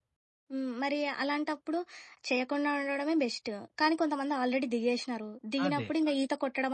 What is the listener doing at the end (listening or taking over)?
listening